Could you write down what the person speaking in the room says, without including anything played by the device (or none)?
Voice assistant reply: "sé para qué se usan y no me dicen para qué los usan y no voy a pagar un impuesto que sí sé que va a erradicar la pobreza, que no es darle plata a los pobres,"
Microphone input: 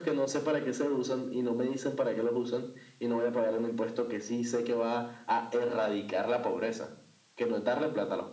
none